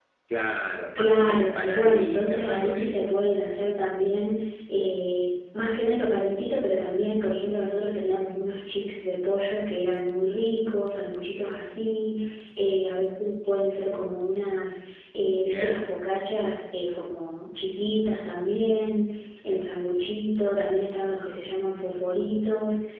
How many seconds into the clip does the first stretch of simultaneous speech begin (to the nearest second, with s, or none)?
1 s